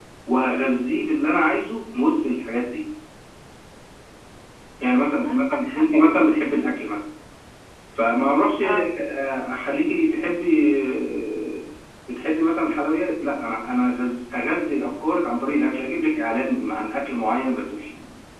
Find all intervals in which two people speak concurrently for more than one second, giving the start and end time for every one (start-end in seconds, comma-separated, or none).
5.2-6.7